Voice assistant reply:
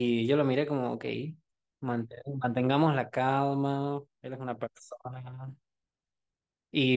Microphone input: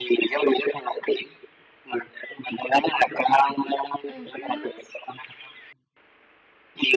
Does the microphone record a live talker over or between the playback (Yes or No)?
Yes